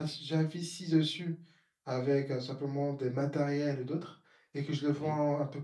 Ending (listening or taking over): listening